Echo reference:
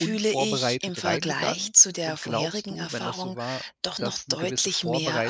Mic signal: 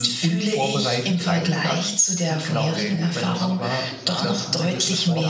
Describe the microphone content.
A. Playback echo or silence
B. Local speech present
B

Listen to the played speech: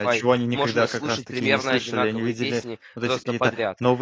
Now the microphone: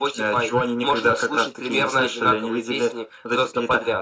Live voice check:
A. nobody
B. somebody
A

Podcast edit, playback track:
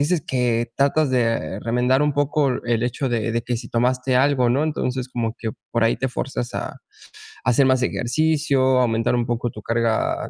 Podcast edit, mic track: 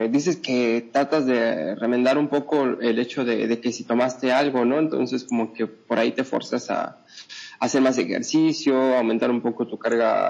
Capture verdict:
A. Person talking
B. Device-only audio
B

